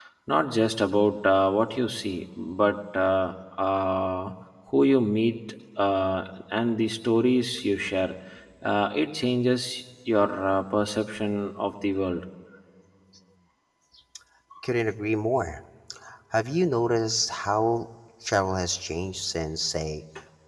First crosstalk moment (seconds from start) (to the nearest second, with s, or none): none